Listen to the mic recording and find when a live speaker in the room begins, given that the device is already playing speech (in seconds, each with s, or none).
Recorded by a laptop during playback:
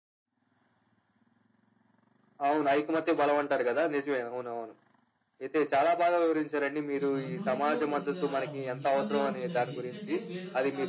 7.0 s